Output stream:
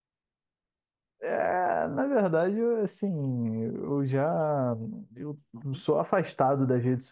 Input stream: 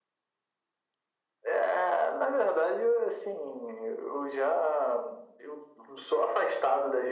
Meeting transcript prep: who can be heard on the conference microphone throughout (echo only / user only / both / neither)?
echo only